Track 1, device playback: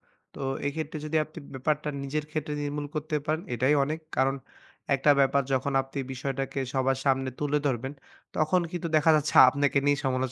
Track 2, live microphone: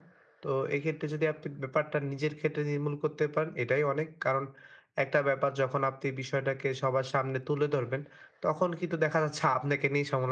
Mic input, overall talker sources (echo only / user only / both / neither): echo only